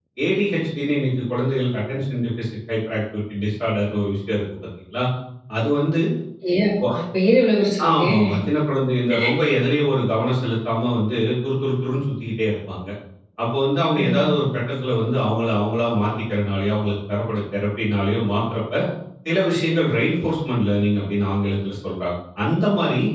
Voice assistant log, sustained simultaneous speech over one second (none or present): none